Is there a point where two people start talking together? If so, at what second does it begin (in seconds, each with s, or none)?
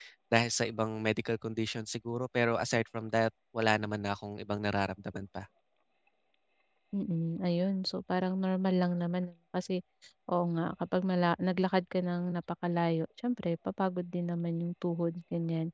none